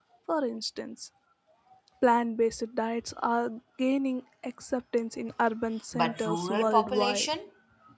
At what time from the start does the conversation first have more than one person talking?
5.9 s

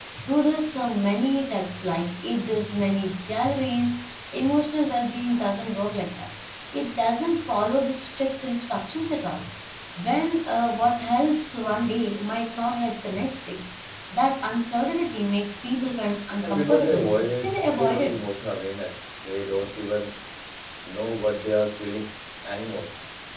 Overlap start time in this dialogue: 16.4 s

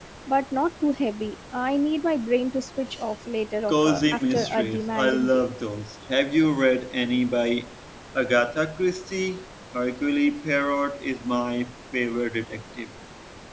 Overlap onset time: 3.7 s

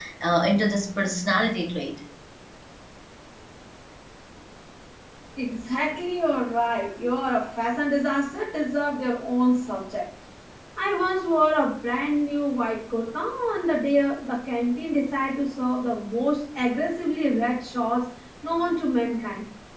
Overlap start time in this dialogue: none

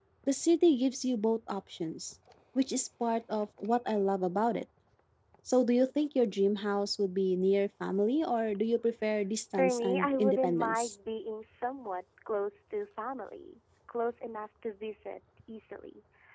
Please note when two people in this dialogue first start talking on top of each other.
9.5 s

